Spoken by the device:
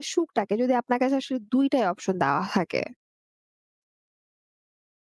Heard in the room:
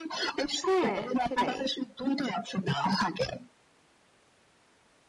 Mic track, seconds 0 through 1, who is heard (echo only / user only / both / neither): both